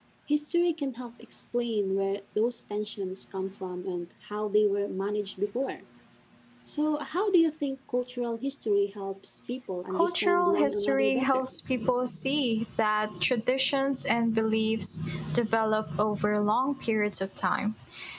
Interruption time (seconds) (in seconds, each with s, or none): 9.9 s